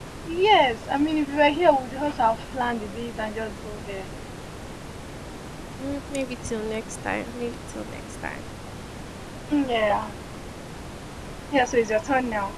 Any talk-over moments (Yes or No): No